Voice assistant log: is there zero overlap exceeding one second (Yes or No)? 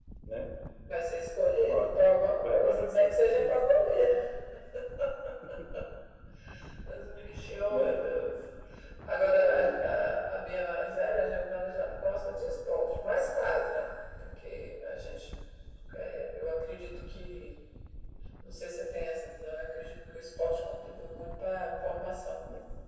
No